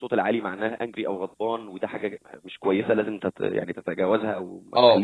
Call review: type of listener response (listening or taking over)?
taking over